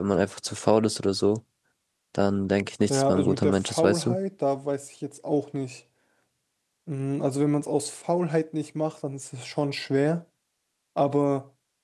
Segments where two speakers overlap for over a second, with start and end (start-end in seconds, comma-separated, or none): 2.9-4.2